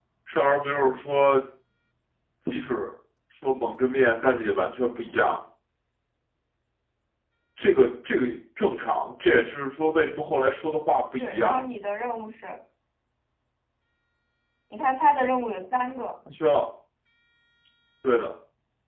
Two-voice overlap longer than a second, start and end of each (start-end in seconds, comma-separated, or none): none